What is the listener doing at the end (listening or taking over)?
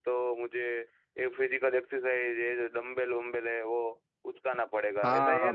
taking over